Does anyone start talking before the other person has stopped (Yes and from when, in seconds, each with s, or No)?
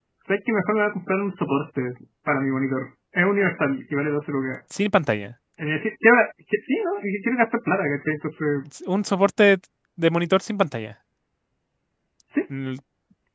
No